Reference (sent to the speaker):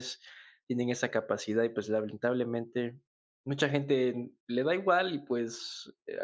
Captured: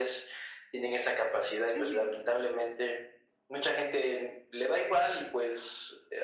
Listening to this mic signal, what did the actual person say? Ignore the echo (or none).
Ujú.